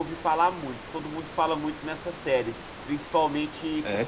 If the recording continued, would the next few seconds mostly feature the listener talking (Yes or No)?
No